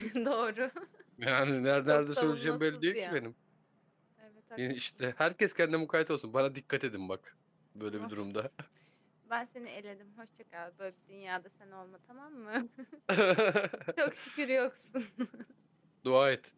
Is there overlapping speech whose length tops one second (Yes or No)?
Yes